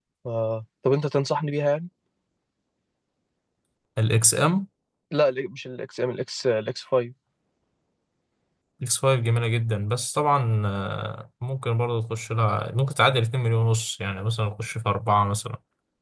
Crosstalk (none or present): none